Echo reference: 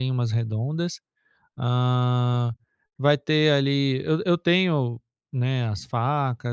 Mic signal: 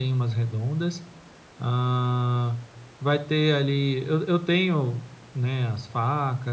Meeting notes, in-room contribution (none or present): none